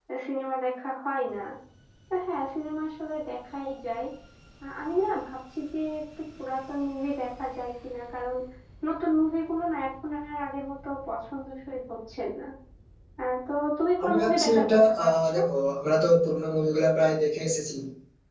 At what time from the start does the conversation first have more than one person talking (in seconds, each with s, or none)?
14.0 s